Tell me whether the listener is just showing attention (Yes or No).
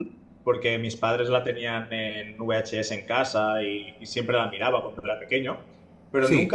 Yes